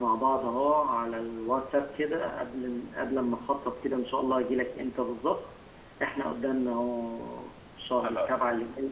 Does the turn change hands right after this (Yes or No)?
No